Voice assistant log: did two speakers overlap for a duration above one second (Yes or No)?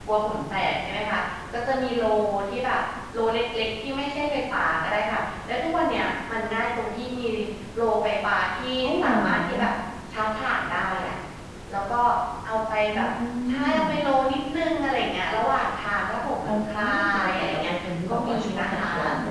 Yes